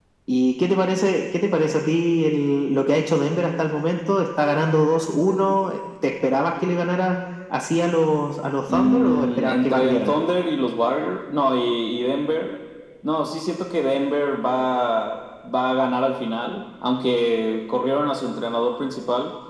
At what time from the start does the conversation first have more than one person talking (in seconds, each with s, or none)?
8.7 s